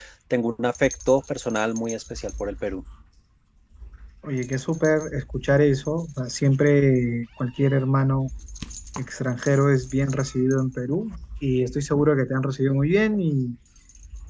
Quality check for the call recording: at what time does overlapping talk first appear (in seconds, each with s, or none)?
none